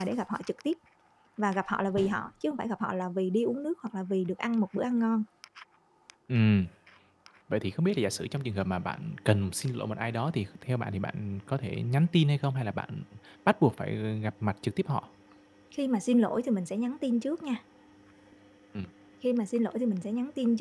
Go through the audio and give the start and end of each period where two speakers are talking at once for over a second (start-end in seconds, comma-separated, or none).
none